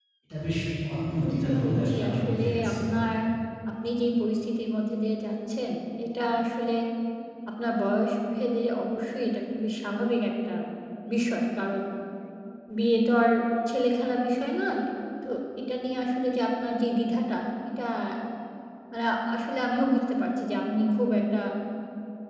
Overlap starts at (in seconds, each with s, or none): 1.2 s